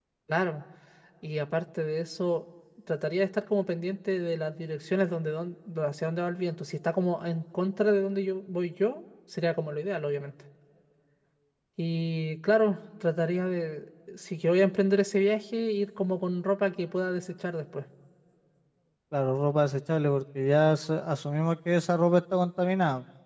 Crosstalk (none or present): none